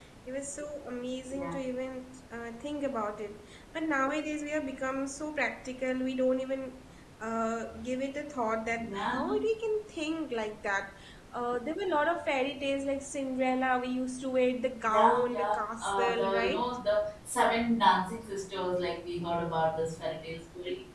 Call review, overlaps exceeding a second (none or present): present